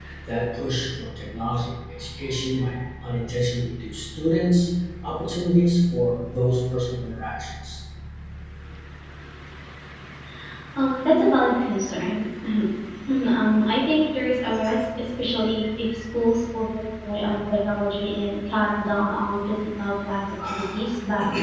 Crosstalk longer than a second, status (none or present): none